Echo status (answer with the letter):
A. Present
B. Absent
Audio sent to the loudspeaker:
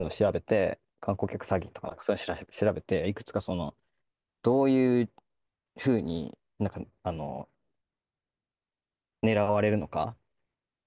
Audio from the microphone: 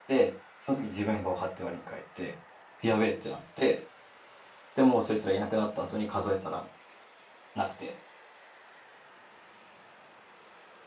B